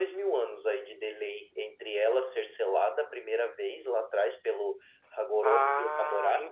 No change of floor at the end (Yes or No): No